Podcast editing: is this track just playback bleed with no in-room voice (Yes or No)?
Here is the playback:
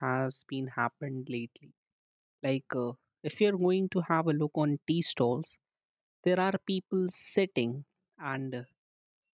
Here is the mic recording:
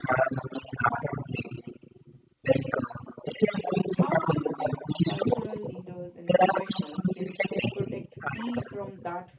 No